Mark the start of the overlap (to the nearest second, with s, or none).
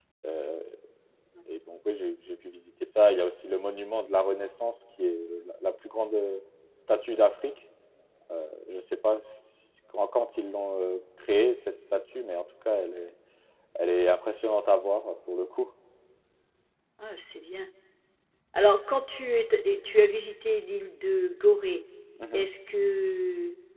none